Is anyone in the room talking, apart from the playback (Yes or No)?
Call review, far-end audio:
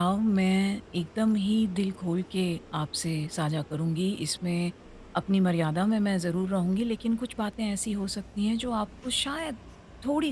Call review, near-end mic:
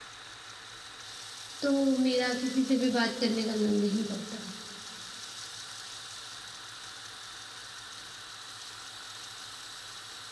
Yes